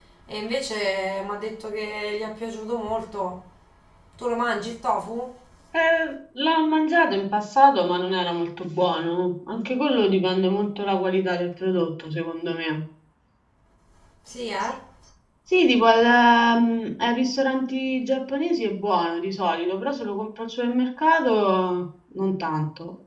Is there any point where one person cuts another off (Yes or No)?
No